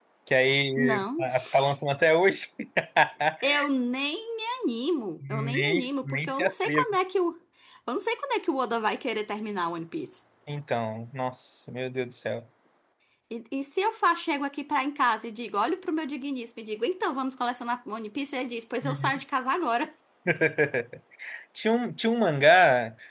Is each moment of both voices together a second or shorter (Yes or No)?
No